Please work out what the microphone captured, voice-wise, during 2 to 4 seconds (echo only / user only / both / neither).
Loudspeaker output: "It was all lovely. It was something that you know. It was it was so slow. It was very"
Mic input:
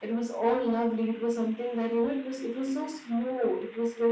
echo only